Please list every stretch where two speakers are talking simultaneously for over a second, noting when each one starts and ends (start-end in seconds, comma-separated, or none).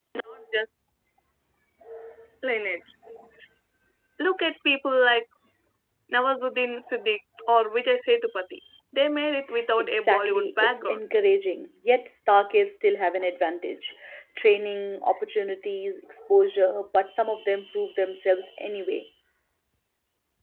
9.8-11.0